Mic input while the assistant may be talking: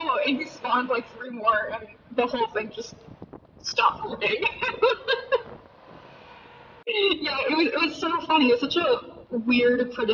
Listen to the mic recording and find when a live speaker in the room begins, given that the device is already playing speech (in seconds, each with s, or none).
none